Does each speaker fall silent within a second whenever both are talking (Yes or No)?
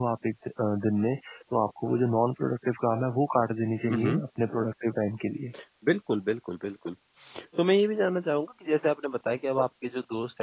Yes